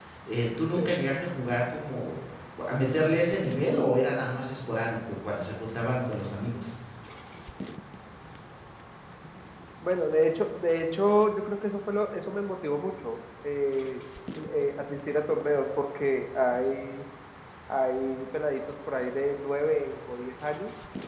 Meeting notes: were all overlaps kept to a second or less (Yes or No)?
Yes